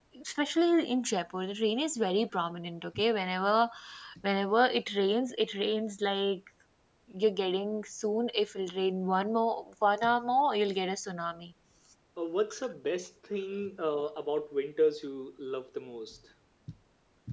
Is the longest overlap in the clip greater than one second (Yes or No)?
No